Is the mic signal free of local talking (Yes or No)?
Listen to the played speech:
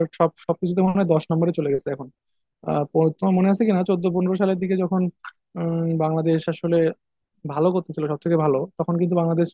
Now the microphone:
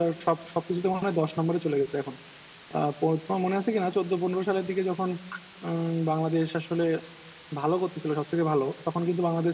Yes